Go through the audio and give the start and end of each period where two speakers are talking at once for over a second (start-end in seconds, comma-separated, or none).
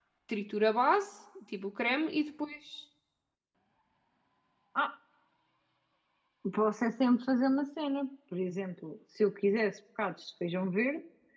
none